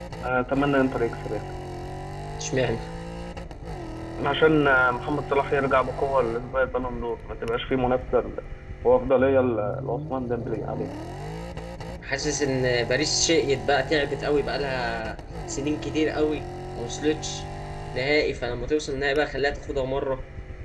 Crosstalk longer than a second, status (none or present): none